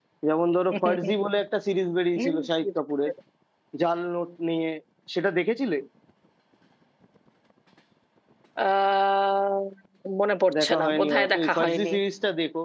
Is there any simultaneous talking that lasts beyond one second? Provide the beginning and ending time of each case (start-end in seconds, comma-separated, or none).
10.6-11.9